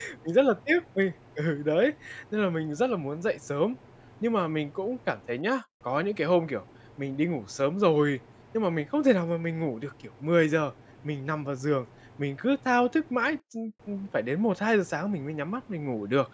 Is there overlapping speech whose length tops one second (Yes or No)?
No